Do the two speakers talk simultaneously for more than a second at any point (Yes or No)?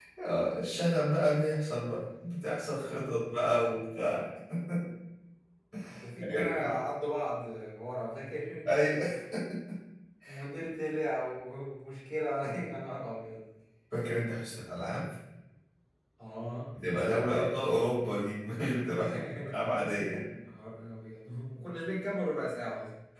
Yes